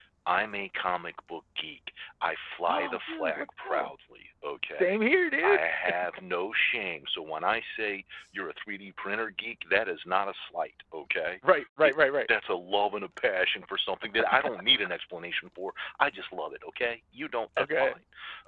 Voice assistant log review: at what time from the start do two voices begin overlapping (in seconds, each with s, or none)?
2.7 s